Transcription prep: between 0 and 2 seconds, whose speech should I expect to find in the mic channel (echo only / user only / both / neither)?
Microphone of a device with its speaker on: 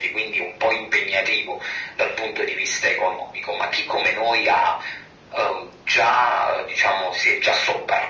echo only